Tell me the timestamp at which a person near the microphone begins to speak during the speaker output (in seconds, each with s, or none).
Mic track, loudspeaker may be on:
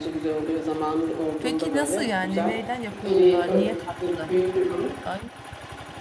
1.4 s